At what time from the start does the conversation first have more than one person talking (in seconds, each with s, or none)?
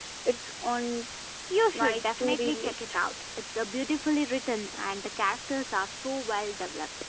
1.7 s